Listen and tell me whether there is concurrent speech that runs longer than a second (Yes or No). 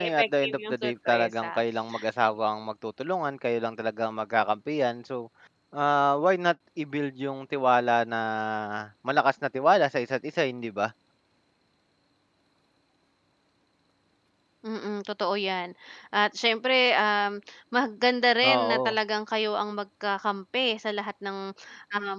Yes